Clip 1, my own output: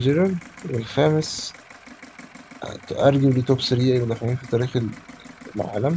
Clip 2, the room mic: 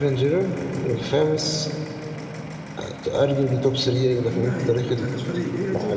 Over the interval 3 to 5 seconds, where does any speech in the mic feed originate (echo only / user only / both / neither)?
both